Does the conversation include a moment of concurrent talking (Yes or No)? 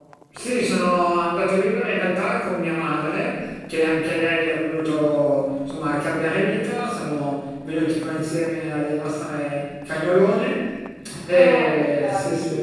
Yes